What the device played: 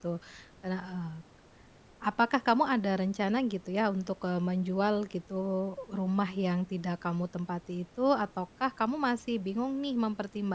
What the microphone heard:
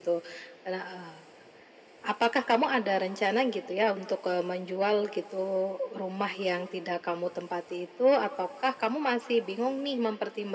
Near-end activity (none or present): none